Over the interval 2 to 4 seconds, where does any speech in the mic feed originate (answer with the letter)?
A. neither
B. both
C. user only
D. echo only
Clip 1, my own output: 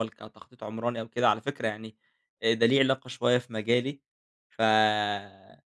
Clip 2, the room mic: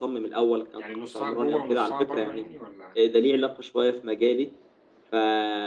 B